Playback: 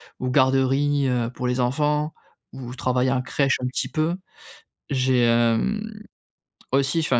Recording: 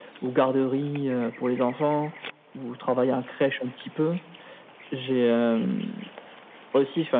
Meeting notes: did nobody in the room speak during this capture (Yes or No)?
Yes